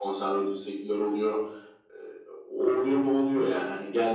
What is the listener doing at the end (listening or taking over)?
taking over